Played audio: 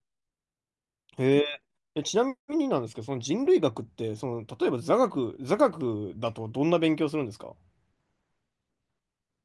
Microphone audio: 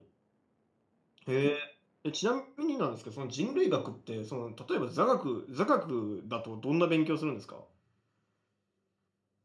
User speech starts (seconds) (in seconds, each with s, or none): none